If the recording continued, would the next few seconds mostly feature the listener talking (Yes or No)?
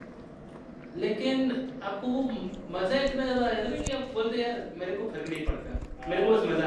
Yes